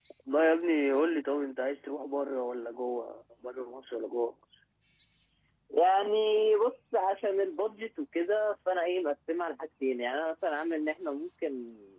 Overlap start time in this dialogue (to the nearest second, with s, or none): none